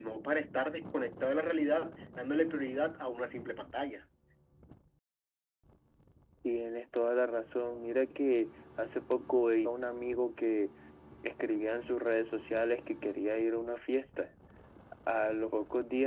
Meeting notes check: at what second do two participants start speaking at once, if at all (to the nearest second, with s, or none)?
none